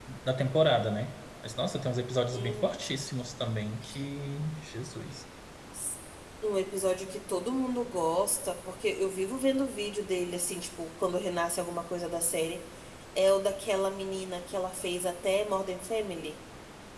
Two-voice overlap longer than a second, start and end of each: none

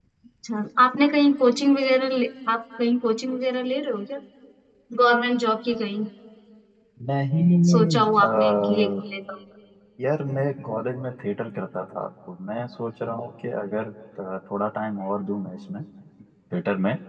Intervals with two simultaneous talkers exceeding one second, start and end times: 7.7-8.9

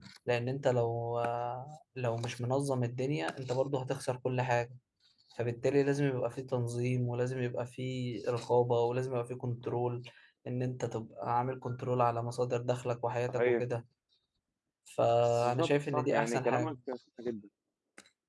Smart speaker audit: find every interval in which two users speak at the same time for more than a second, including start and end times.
15.4-16.8

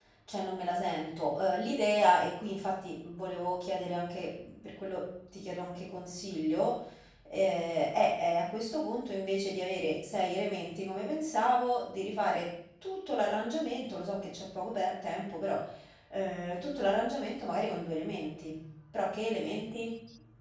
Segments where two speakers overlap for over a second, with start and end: none

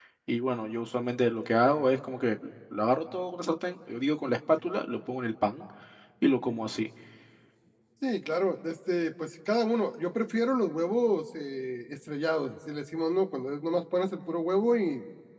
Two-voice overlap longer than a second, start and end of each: none

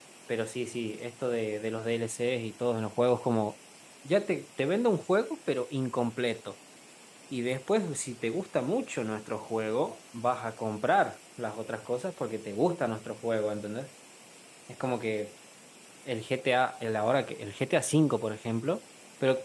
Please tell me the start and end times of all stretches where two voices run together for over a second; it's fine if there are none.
none

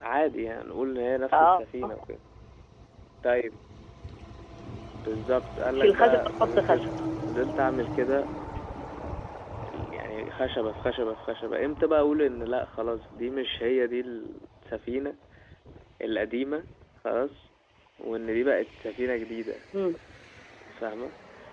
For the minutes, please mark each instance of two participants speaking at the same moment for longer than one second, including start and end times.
5.7-6.9

